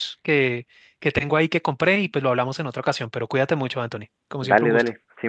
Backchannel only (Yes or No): No